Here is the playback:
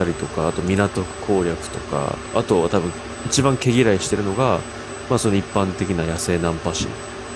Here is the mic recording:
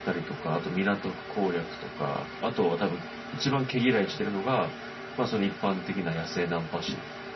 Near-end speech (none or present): none